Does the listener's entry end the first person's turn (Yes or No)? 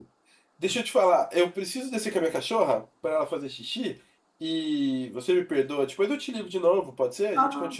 Yes